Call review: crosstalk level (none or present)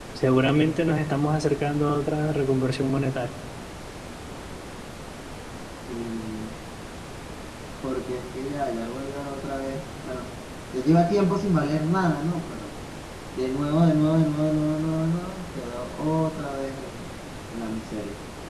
none